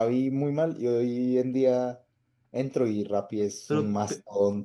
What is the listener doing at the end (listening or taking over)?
listening